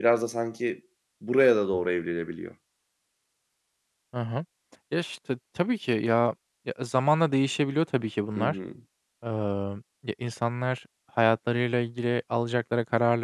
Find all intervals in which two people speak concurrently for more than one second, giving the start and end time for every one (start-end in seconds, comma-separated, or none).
none